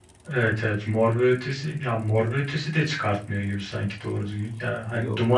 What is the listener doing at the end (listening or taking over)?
listening